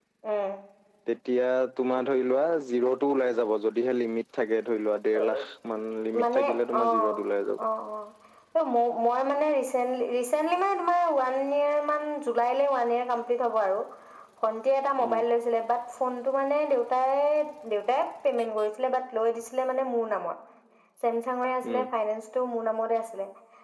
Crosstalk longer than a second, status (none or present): none